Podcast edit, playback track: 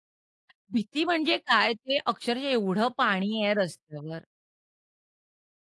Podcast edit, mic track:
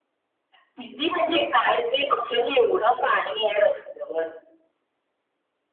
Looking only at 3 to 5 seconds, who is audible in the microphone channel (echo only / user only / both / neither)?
echo only